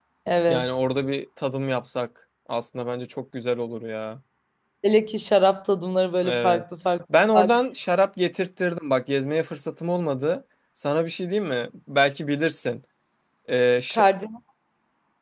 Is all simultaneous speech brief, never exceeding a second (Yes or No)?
Yes